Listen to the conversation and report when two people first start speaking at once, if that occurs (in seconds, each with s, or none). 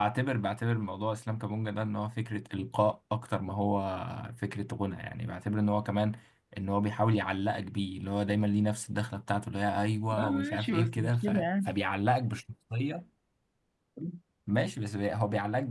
10.1 s